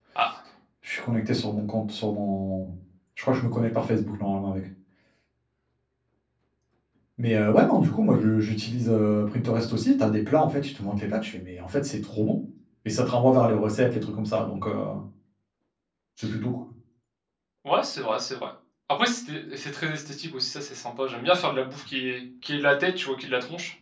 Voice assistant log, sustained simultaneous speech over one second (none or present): none